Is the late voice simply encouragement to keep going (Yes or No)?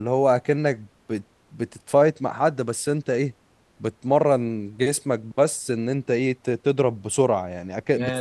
No